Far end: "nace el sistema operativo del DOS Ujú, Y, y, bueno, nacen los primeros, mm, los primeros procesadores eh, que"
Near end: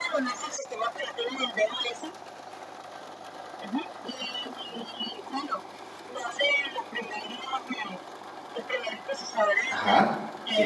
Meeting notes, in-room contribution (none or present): present